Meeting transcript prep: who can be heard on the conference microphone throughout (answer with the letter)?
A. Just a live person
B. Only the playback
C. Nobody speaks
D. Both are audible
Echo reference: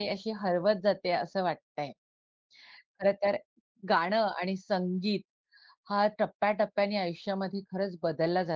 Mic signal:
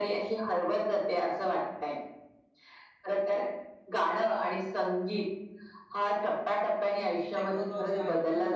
D